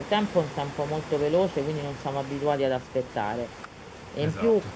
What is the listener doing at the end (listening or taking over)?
listening